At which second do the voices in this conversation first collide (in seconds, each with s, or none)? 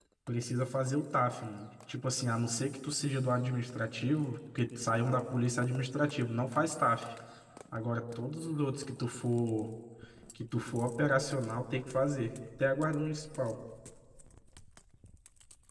none